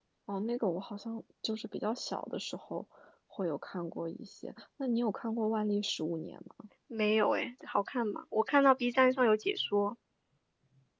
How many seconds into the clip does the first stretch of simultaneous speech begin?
none

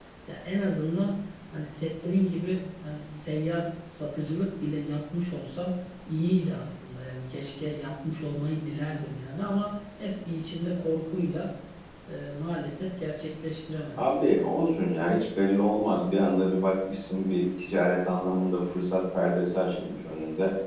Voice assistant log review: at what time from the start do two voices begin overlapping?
none

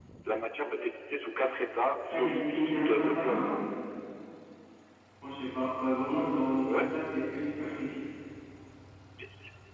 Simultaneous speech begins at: 2.1 s

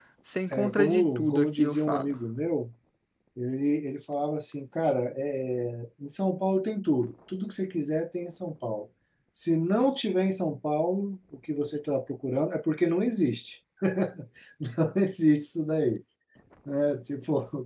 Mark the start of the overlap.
0.5 s

